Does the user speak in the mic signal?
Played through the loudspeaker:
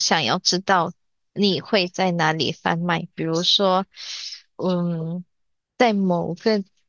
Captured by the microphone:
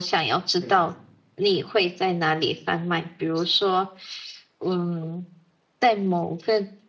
Yes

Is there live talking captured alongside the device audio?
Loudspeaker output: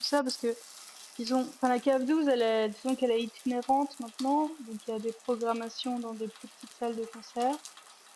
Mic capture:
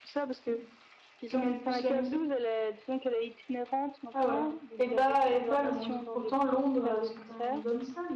Yes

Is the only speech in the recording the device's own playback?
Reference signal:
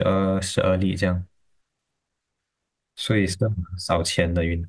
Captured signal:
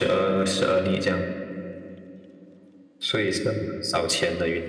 Yes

